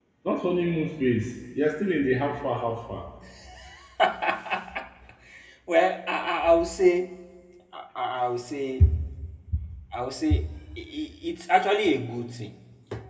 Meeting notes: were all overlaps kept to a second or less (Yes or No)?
Yes